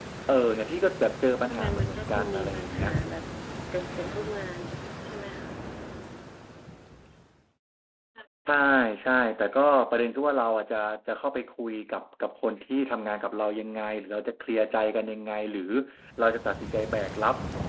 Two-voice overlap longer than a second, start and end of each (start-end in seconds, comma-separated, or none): 1.5-2.9